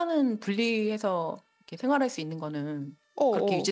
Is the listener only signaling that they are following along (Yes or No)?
No